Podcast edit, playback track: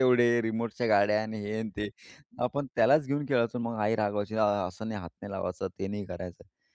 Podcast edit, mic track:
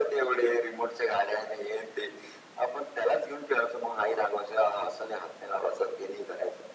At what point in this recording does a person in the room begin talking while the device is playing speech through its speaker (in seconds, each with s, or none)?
none